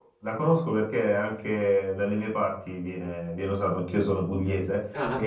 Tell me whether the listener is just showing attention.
Yes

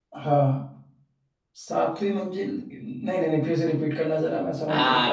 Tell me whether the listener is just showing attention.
No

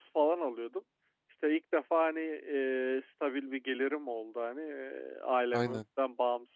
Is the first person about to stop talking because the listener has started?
No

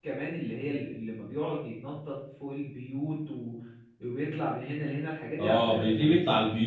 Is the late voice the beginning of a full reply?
Yes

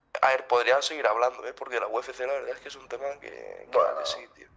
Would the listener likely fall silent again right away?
No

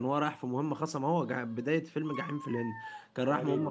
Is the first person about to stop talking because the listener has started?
No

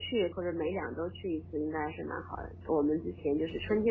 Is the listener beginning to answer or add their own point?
No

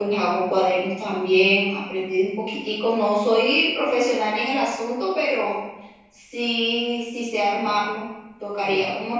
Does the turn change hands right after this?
No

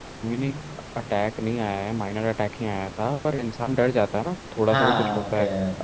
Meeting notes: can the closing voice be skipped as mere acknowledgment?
Yes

